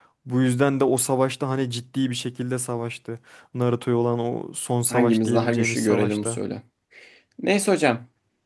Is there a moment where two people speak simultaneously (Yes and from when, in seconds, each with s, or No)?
Yes, from 4.9 s